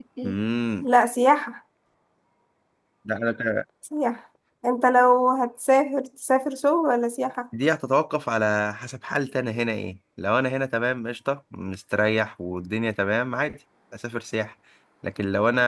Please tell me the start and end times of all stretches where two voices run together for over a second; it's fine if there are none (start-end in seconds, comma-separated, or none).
none